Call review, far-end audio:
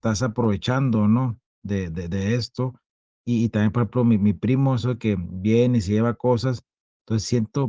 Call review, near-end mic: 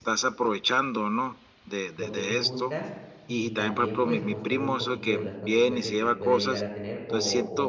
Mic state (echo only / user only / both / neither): both